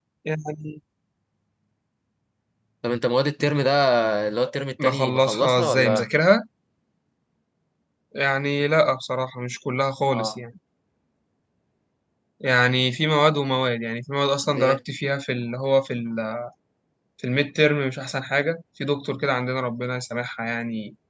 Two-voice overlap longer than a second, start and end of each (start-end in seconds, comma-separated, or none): 4.8-6.1